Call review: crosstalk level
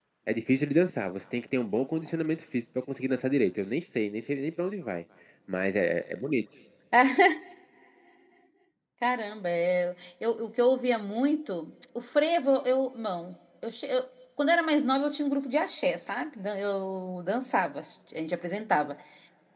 none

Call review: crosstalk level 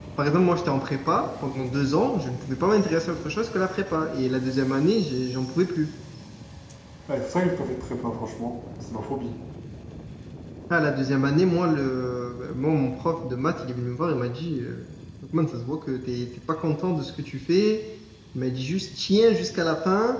none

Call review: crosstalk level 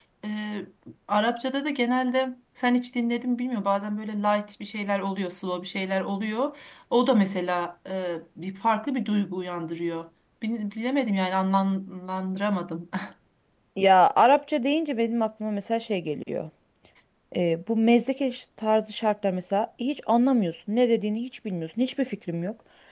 none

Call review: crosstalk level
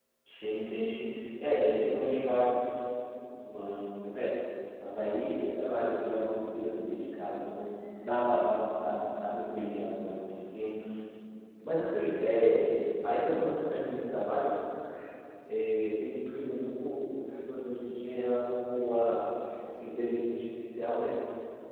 none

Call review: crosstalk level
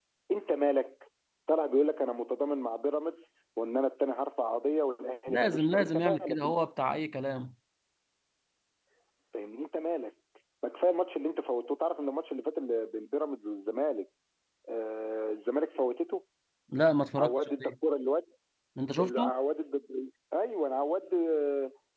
present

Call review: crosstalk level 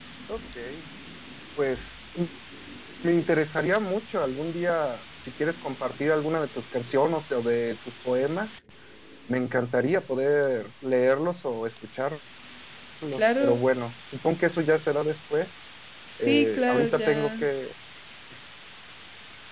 present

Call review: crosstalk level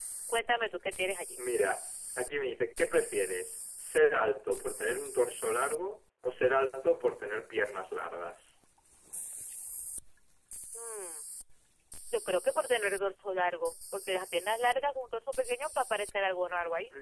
none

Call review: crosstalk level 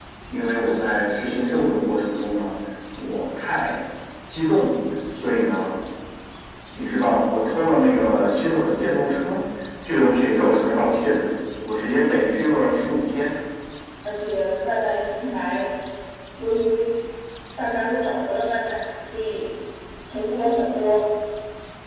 none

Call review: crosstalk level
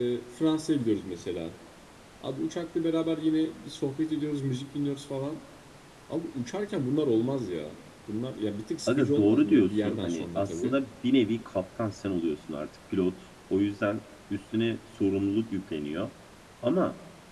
present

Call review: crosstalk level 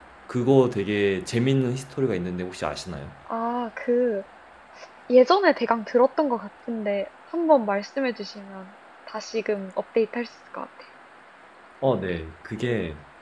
none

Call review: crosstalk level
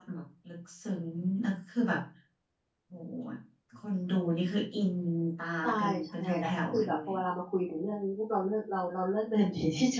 present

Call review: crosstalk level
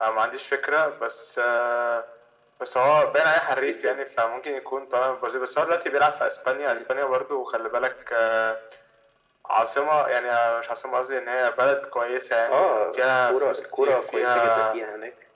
present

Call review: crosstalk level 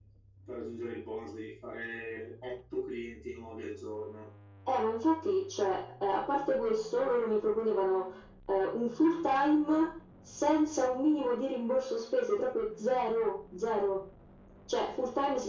none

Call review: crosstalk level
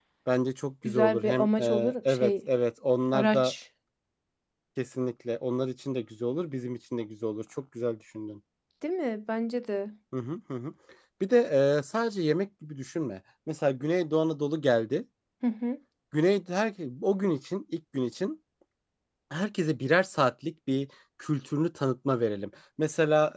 present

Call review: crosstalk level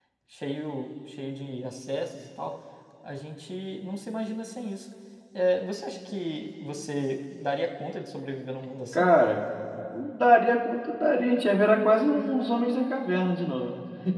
none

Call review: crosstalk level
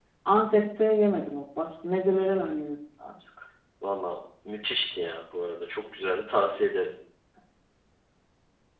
none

